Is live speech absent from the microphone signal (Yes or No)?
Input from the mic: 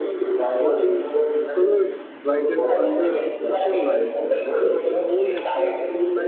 No